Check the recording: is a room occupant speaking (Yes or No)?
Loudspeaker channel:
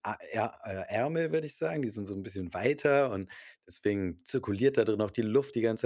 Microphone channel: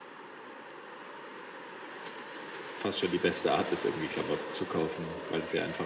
Yes